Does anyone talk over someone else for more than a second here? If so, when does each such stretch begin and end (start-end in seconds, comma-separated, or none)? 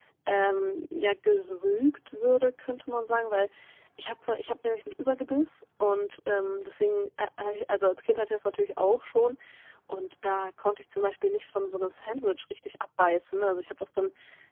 none